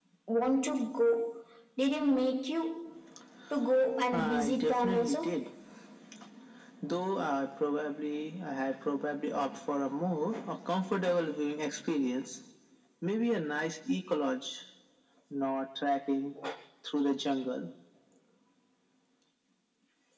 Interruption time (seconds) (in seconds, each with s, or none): 4.1 s